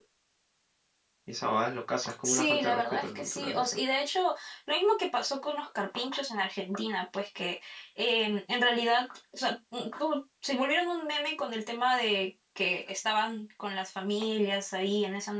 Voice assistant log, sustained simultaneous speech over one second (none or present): present